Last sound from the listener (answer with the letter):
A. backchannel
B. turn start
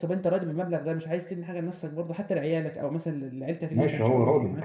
B